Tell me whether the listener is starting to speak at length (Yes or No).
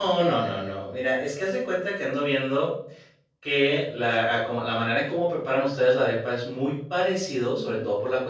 No